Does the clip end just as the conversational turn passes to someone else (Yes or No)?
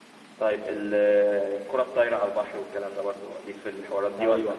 Yes